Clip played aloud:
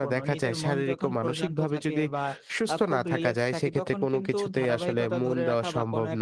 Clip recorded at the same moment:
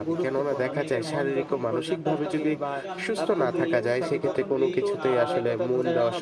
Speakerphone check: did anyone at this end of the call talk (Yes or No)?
Yes